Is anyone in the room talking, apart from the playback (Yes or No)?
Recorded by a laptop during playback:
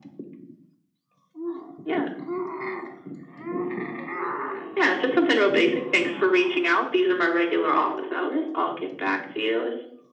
No